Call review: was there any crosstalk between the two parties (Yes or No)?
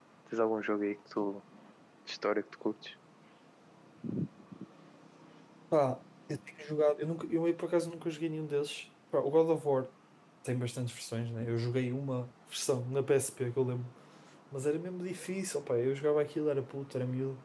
No